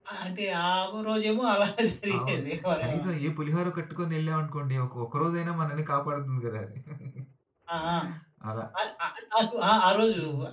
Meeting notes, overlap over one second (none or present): none